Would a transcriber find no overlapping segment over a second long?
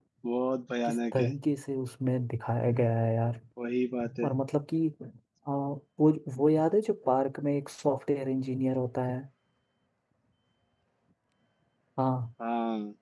Yes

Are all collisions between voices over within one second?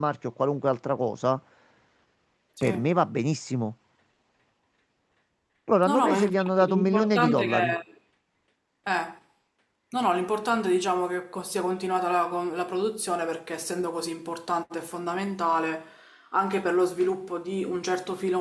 No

